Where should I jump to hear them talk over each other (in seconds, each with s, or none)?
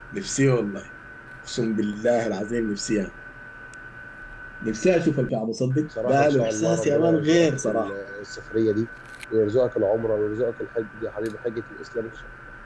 5.9 s